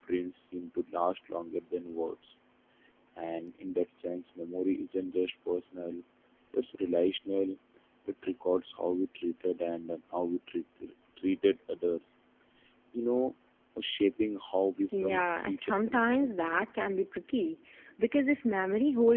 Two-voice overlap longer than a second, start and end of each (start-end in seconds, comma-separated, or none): 15.0-16.6